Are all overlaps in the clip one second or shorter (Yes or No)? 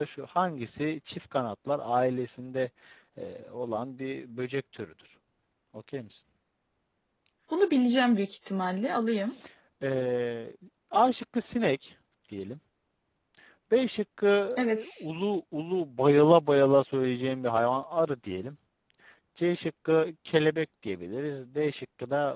Yes